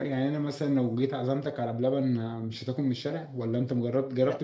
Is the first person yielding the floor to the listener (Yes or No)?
Yes